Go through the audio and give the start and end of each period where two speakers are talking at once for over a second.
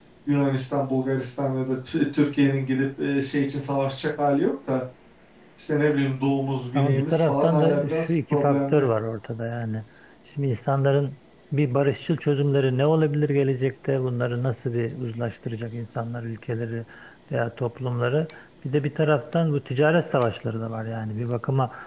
6.7-8.8

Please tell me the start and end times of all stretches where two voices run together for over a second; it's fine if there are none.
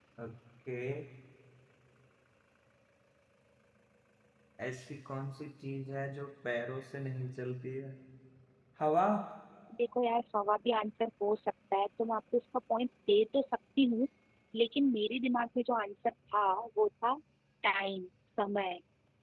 none

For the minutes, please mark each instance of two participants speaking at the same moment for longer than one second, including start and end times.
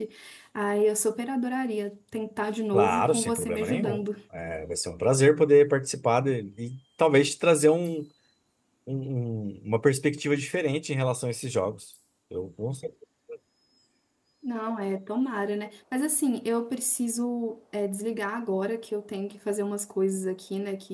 2.7-4.0

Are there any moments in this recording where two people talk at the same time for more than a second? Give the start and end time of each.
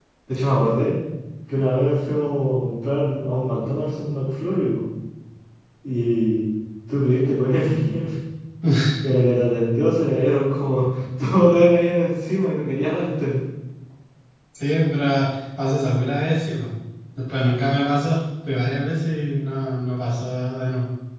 none

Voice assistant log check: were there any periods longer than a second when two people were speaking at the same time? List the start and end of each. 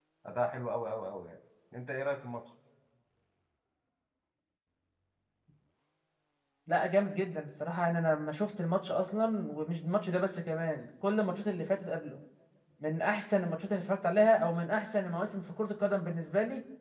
none

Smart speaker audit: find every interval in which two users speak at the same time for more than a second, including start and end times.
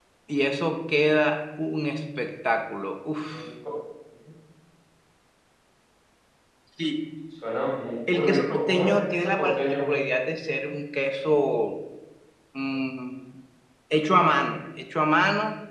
8.1-9.9

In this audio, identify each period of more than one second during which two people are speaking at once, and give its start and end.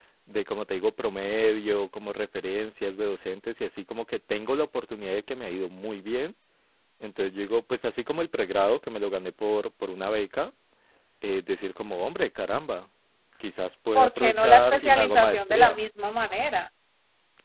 13.9-15.8

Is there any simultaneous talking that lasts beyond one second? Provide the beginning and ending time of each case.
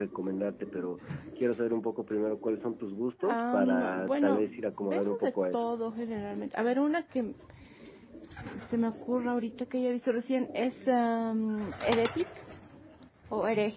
3.2-5.6

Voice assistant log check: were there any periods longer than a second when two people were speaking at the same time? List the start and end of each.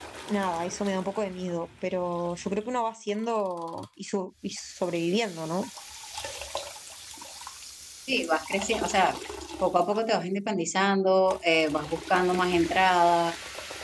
none

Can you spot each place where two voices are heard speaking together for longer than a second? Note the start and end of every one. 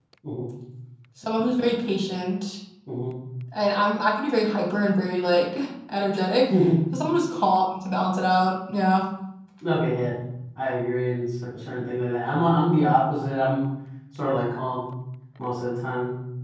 none

